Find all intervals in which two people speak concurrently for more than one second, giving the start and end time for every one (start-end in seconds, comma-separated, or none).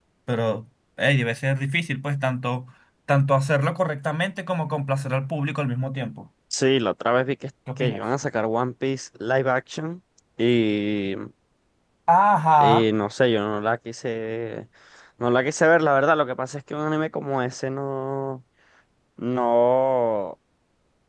none